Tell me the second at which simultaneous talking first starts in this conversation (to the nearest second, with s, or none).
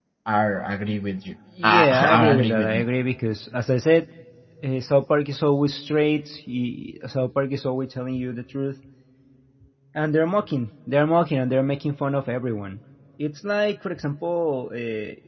2 s